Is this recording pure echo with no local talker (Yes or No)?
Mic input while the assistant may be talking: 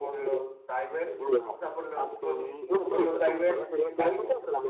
No